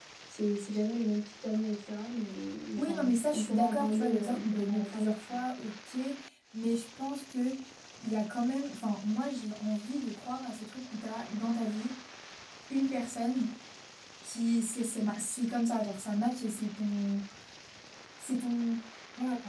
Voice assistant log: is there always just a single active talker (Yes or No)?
No